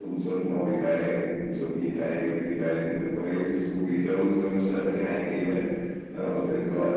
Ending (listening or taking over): taking over